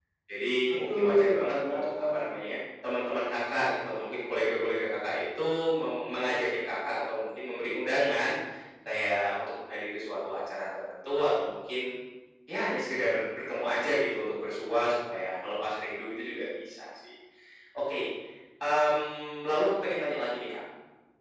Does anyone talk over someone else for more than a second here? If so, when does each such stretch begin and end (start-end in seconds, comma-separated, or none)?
0.9-2.2